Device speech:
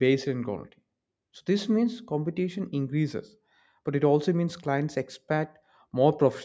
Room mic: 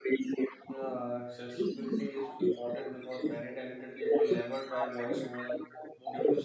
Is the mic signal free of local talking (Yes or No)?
No